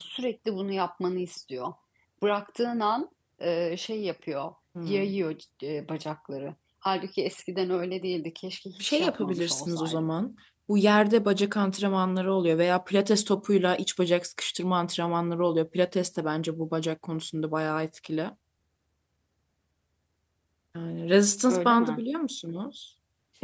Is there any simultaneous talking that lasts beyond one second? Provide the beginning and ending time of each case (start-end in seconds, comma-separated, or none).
8.8-10.1